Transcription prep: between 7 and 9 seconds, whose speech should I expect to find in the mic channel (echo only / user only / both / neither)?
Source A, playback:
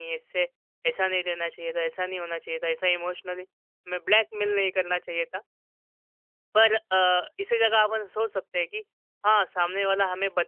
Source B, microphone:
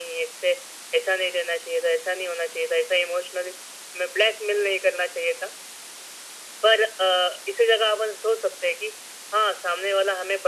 echo only